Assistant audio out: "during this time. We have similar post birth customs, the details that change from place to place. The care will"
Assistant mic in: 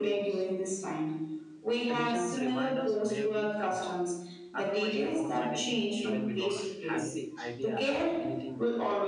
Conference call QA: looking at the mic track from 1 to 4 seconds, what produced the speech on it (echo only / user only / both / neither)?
both